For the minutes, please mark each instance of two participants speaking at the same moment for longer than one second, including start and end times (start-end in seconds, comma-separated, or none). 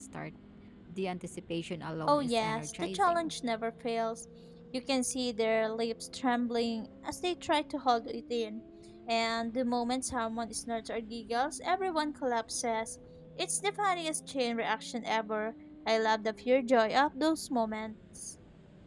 2.1-3.3